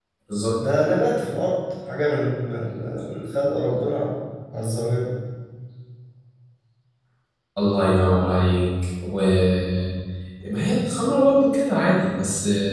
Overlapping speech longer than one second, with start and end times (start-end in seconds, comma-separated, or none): none